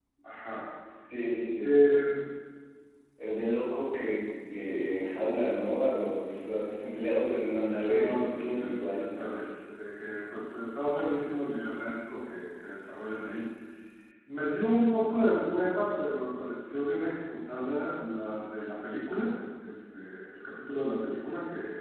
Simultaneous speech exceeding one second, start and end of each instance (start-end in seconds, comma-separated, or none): 7.8-9.0